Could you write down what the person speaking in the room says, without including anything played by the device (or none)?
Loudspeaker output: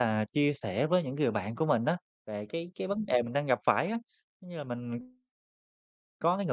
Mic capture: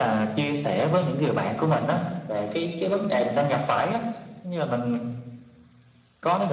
none